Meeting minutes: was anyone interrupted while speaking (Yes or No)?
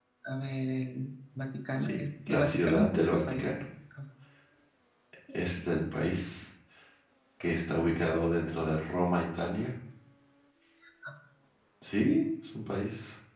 Yes